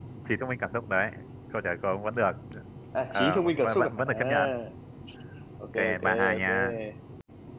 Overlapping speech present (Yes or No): Yes